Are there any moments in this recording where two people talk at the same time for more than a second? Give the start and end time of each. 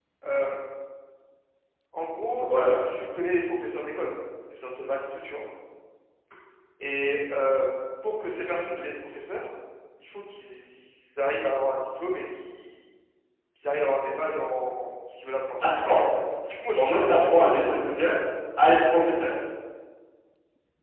16.7-18.0

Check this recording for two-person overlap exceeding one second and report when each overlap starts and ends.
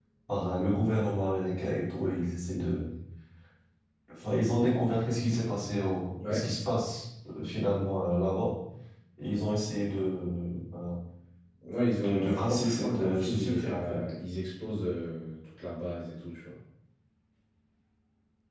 11.9-14.0

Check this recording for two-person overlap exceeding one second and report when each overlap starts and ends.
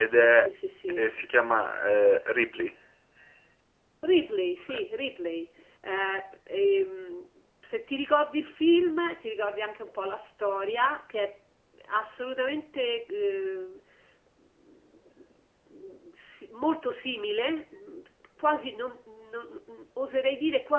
none

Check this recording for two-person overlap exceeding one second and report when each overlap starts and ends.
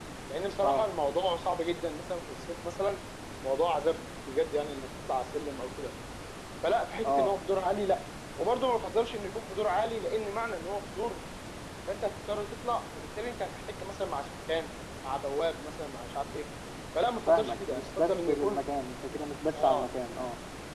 17.3-18.6

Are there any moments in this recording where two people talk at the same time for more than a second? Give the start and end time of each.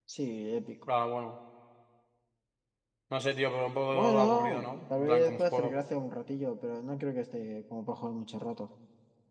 3.9-5.7

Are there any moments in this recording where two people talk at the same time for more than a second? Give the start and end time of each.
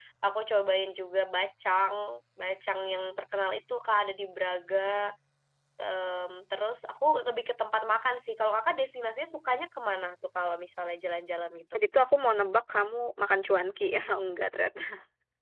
none

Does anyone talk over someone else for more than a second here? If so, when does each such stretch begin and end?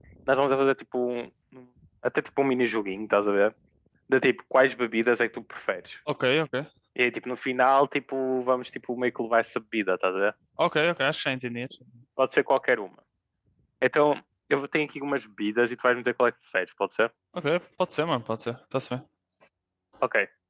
none

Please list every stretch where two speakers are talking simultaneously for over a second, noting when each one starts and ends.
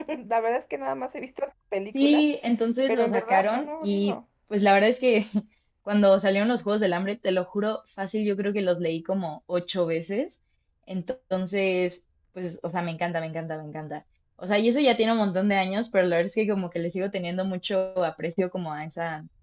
2.9-4.2

